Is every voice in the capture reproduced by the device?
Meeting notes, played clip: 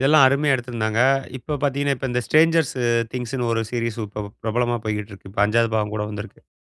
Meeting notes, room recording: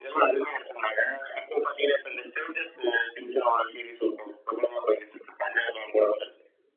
Yes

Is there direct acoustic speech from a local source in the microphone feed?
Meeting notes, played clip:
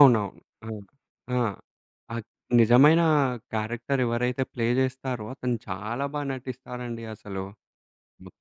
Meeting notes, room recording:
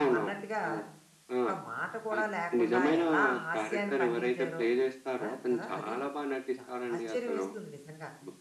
Yes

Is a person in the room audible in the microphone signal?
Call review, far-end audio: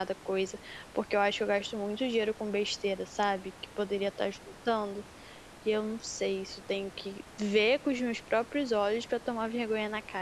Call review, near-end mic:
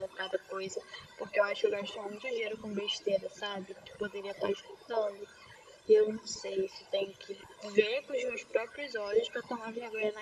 No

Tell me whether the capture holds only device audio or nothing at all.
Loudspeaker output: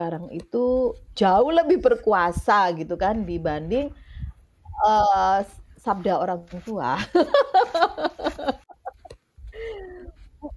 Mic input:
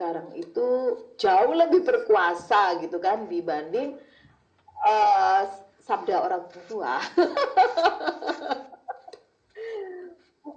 Yes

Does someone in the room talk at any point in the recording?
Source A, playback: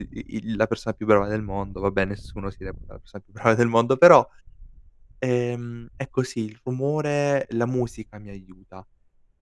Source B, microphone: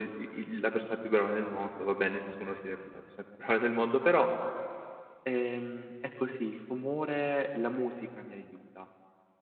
No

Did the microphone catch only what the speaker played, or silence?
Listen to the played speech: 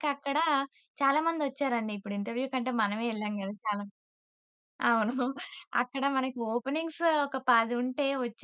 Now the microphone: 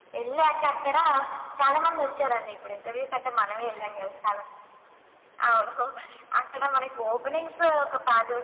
Yes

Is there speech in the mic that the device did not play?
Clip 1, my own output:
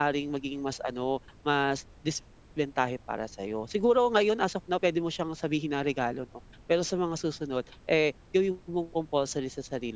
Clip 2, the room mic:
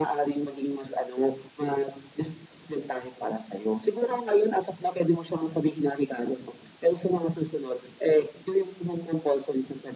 No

